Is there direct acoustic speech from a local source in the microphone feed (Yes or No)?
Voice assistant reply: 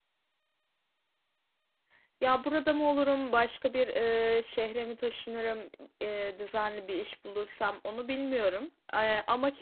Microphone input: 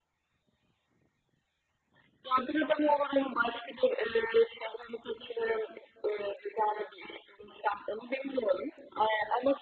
No